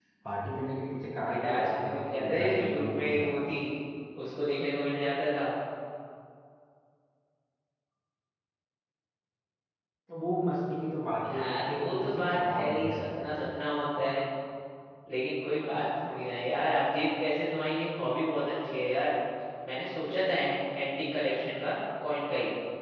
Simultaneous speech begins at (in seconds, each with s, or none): 1.2 s